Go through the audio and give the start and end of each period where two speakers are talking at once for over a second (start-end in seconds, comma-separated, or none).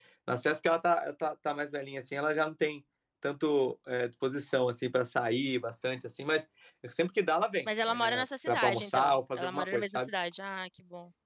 7.9-10.1